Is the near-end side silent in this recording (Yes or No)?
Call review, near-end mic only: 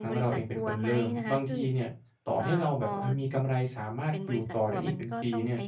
No